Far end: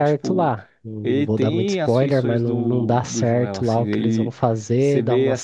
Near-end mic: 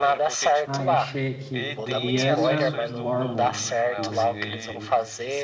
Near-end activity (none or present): present